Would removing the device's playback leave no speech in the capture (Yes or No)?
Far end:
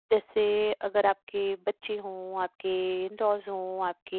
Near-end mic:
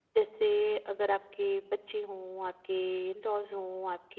Yes